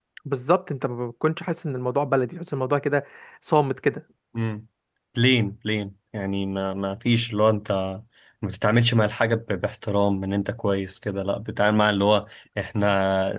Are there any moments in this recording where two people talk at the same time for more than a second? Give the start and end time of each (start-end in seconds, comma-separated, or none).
none